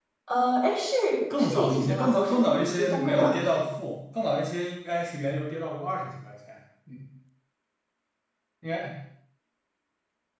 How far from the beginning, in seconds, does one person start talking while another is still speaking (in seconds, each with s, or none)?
1.4 s